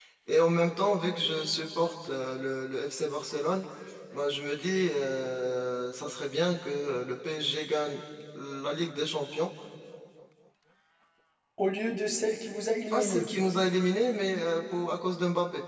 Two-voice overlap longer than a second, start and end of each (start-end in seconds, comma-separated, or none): none